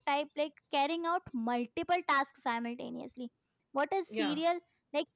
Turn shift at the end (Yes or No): No